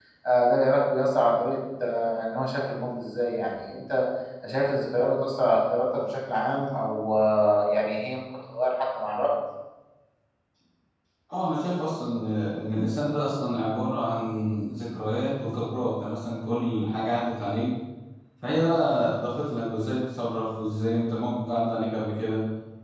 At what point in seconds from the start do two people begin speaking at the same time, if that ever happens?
none

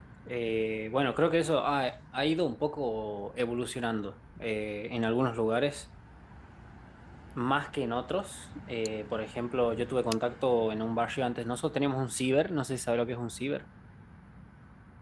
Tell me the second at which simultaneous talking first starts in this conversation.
none

